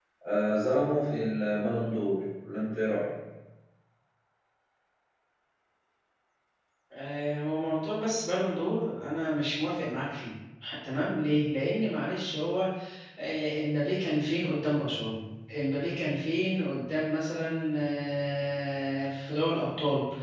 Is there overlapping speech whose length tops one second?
No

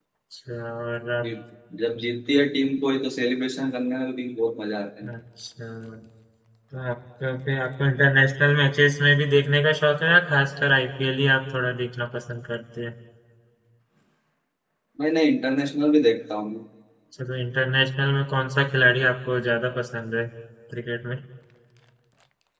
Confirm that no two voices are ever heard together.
Yes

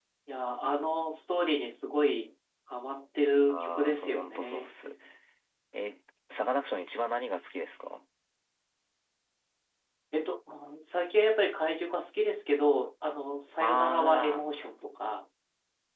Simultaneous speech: Yes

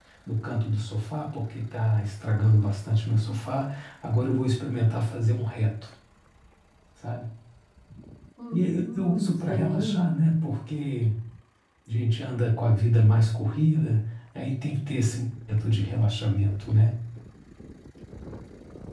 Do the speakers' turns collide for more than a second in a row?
Yes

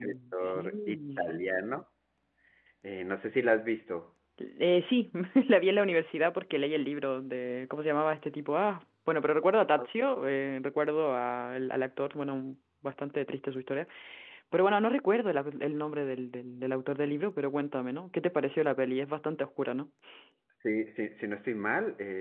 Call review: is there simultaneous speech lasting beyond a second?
Yes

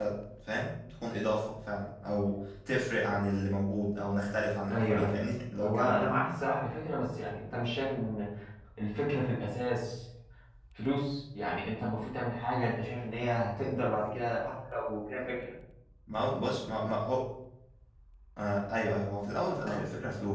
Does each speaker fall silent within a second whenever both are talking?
Yes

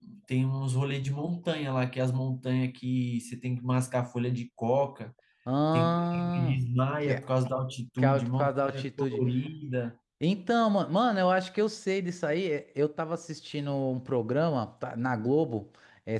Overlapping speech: Yes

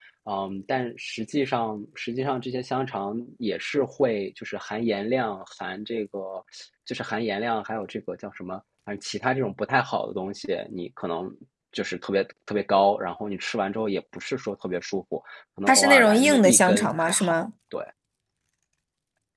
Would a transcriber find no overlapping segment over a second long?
No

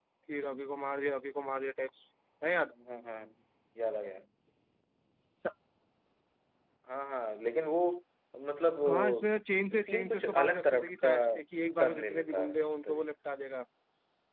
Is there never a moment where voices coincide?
No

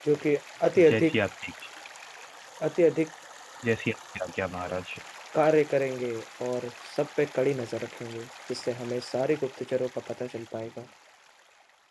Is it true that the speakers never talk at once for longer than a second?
Yes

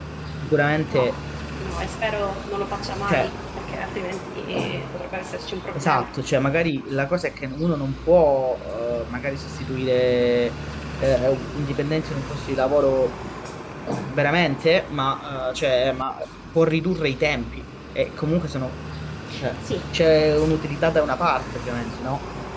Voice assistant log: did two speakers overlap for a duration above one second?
No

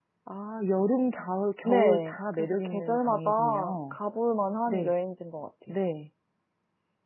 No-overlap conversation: No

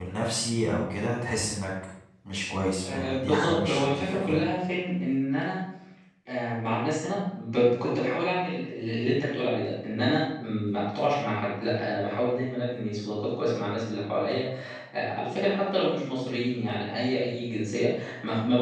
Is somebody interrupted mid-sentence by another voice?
Yes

